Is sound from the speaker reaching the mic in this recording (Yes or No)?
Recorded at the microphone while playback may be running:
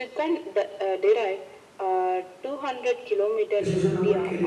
Yes